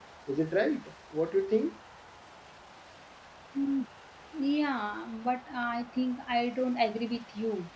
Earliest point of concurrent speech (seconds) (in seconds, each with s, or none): none